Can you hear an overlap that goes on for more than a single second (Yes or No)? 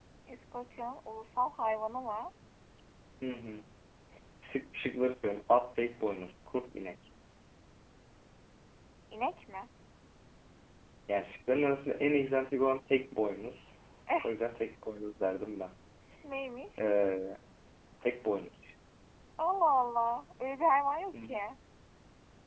No